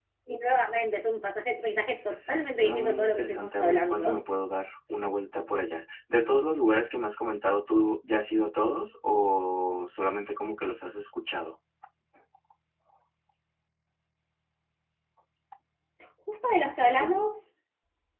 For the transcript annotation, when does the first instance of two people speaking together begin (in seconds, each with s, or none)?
2.6 s